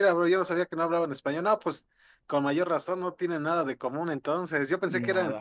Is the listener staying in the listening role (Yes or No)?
Yes